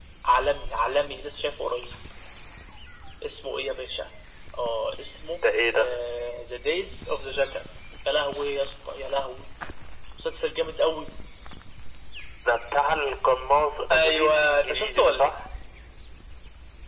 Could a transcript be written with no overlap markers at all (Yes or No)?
No